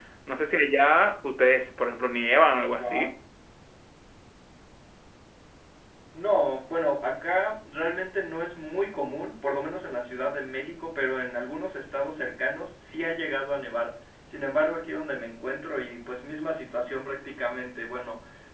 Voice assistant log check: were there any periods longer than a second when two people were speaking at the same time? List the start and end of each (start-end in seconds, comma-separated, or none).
none